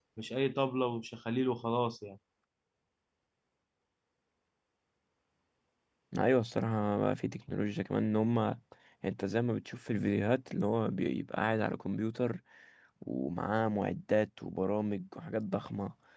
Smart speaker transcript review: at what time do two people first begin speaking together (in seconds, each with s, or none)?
none